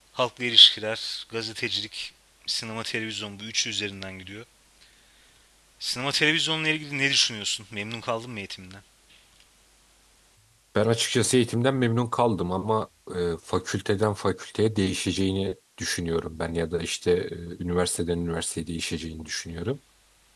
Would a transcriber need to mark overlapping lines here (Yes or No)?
No